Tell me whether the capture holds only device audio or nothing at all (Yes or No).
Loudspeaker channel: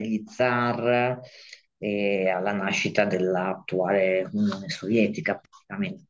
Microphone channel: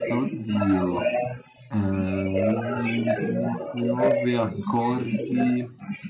No